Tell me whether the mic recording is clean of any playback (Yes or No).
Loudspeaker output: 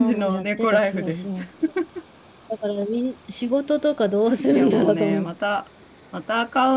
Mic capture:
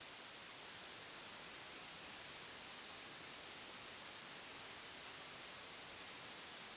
Yes